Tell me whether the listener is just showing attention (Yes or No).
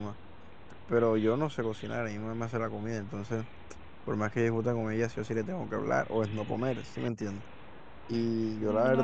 Yes